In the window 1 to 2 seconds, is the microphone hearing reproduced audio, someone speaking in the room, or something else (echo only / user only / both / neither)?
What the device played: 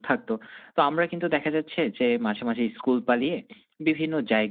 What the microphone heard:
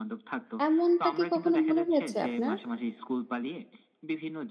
both